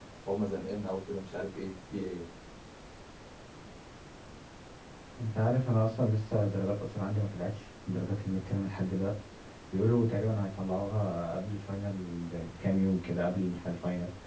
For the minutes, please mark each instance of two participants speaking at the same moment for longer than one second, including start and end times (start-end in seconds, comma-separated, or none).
none